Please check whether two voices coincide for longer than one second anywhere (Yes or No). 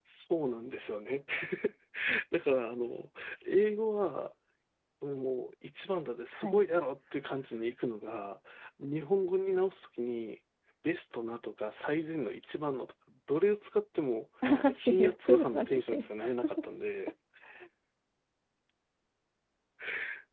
Yes